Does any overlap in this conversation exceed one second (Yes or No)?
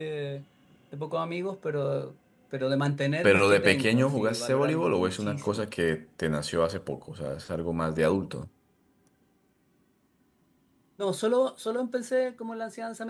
Yes